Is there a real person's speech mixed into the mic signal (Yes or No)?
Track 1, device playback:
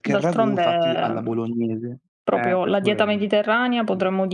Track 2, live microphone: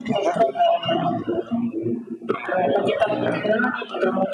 Yes